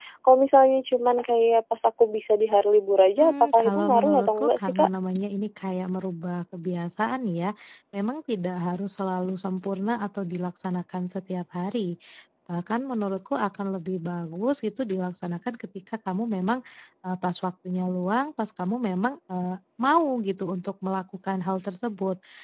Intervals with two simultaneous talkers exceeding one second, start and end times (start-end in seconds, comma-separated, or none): 3.2-4.9